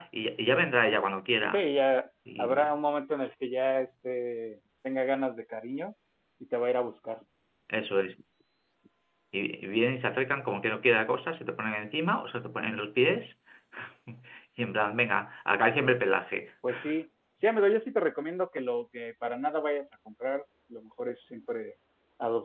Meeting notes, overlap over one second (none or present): none